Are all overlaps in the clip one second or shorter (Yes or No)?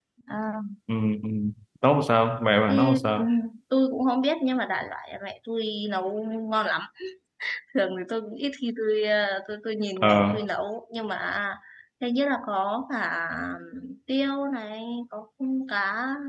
Yes